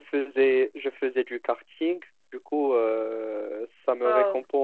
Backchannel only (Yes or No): Yes